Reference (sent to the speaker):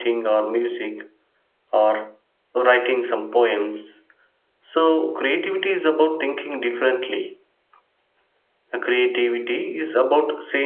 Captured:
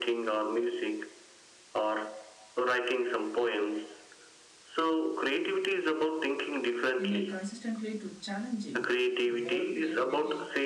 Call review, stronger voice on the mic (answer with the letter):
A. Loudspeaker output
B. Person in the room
A